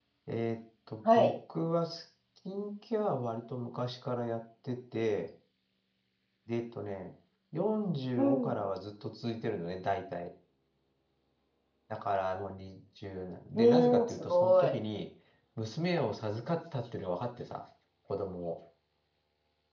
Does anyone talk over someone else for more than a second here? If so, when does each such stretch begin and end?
13.5-14.7

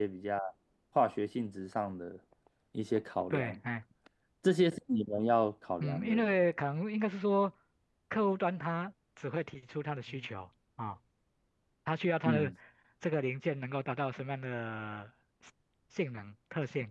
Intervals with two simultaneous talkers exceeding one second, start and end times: none

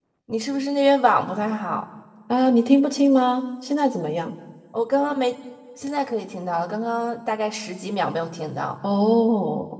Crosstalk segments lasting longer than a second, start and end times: none

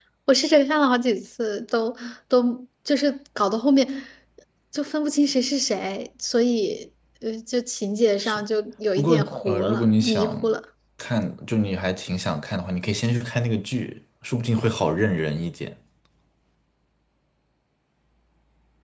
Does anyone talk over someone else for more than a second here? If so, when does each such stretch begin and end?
9.0-10.6

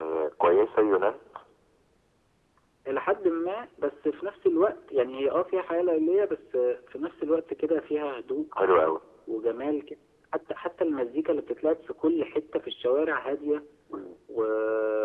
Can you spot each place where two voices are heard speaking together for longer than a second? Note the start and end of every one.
none

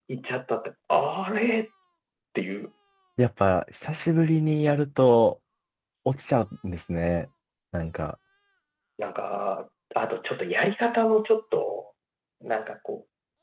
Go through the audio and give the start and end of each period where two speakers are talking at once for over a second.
none

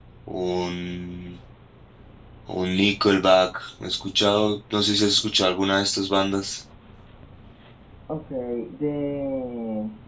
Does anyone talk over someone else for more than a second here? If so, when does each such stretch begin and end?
none

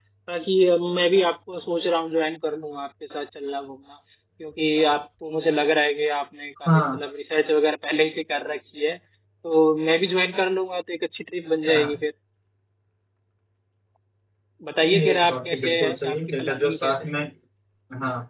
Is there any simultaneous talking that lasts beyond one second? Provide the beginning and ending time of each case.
14.9-16.9

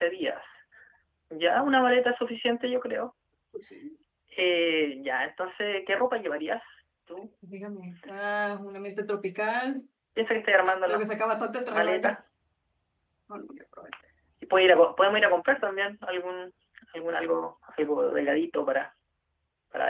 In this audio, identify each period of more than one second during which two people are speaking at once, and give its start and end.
none

